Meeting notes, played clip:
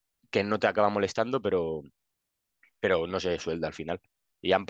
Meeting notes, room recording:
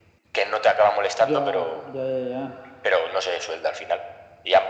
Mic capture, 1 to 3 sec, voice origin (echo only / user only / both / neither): both